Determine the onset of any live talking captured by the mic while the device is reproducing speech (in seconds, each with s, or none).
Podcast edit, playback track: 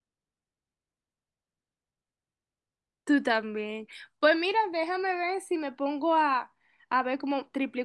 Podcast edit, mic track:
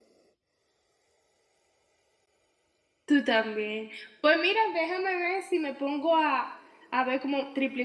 none